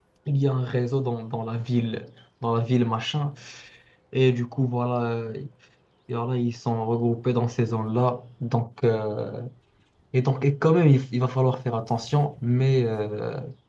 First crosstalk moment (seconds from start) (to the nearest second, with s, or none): none